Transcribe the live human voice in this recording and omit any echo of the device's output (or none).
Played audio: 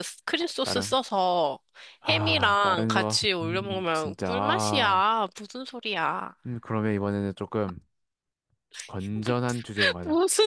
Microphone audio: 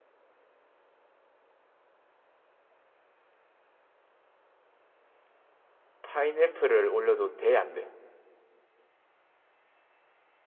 파인애플을 올려도 돼, 안 돼?